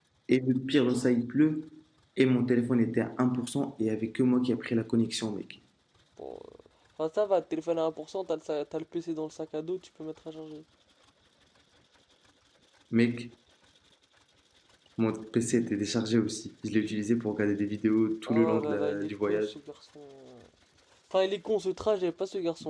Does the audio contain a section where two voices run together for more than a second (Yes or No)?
Yes